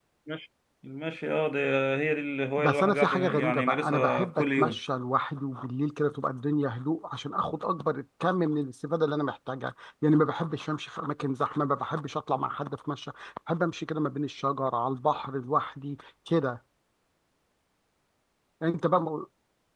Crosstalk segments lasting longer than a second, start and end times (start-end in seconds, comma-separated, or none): 2.6-4.8